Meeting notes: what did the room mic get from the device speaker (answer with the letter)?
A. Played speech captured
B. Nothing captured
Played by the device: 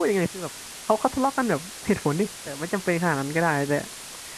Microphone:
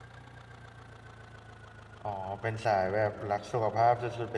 B